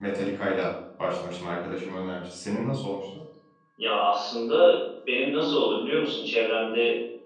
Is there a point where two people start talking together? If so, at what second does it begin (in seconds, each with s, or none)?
none